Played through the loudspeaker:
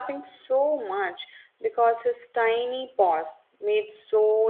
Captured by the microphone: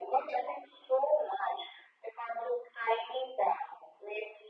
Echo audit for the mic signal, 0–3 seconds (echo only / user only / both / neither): echo only